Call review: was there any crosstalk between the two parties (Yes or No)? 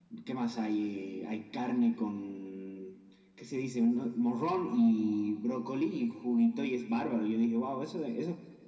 No